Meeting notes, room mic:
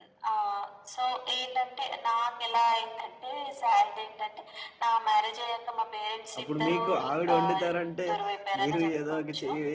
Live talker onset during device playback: 6.4 s

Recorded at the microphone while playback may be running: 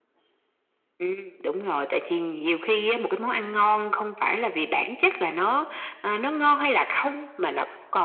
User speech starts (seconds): none

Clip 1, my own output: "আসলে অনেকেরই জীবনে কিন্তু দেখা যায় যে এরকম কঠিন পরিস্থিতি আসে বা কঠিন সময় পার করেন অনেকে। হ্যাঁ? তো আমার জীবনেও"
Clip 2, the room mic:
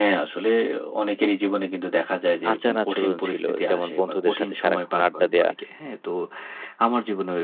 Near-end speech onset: 2.5 s

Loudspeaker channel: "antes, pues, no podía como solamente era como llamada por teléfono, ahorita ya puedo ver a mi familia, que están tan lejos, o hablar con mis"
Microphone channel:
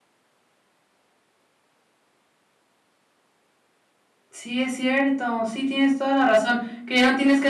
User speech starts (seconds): 4.3 s

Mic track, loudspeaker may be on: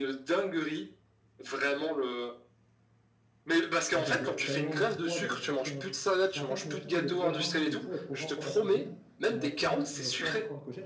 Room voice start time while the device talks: 4.0 s

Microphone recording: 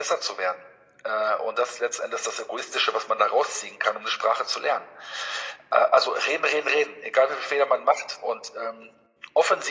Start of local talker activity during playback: none

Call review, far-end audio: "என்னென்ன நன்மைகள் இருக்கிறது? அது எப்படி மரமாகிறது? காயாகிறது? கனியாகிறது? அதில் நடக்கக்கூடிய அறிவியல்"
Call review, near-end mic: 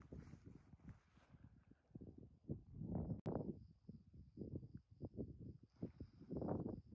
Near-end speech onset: none

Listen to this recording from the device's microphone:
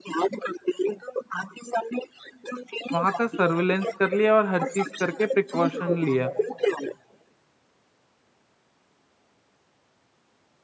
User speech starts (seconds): 2.9 s

